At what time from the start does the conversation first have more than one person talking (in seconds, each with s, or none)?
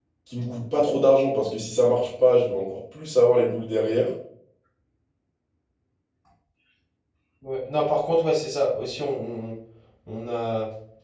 none